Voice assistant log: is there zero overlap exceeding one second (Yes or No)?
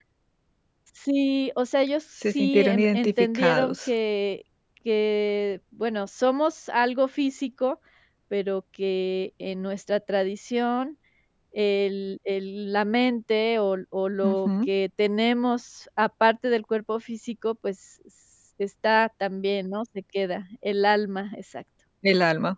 No